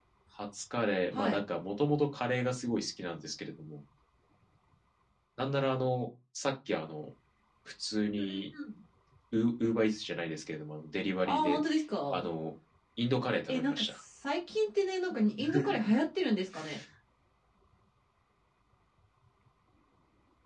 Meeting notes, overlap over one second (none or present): none